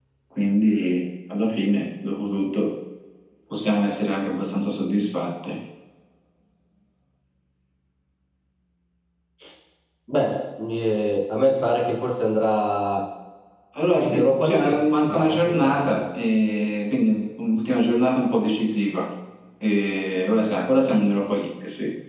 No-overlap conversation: No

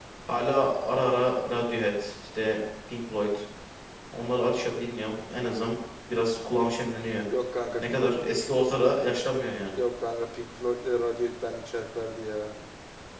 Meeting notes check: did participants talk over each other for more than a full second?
No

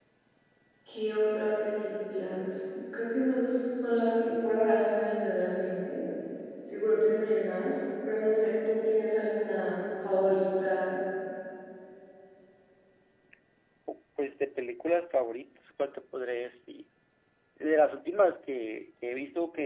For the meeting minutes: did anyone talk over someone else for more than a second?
No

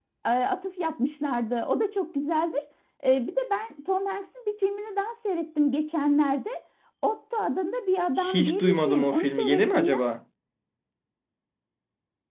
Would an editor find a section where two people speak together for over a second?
Yes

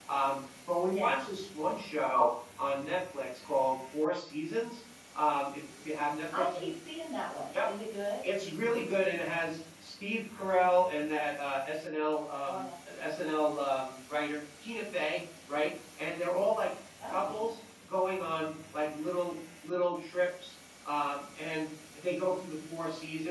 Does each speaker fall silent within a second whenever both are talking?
Yes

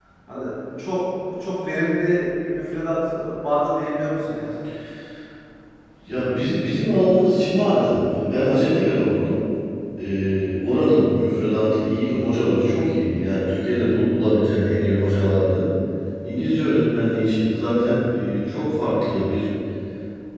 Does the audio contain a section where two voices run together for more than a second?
No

